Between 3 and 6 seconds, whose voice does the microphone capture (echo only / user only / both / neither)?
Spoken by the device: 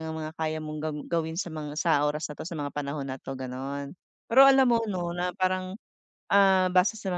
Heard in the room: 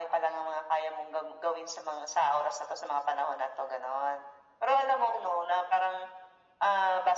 echo only